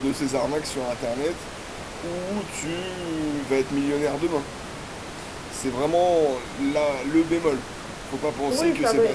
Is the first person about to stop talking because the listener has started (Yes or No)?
Yes